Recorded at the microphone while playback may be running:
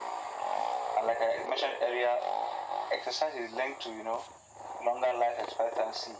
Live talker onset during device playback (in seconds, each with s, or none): none